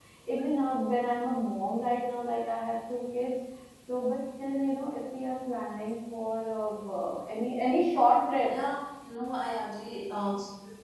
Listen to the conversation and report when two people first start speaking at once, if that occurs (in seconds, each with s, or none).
none